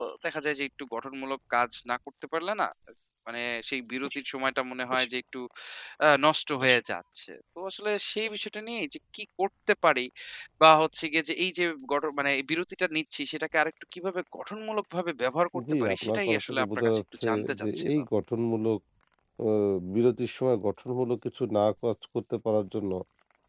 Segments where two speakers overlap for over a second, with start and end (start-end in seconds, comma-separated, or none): 15.7-17.9